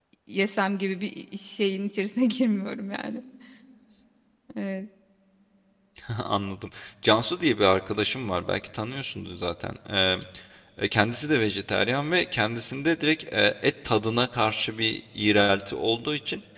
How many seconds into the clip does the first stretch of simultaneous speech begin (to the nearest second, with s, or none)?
none